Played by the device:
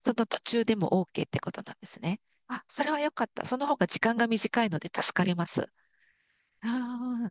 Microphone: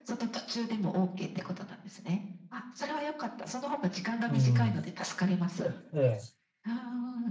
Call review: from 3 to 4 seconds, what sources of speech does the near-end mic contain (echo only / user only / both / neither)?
echo only